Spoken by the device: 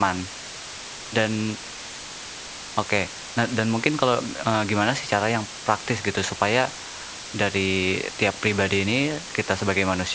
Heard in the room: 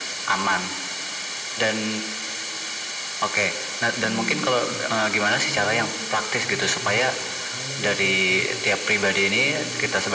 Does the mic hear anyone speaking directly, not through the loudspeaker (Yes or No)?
Yes